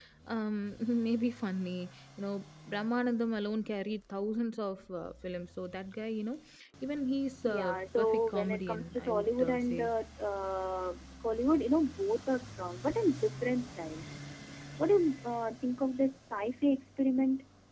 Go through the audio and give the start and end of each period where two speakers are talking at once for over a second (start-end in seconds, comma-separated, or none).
7.5-9.9